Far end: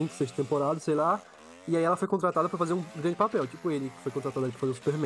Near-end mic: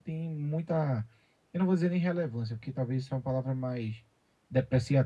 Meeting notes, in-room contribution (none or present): present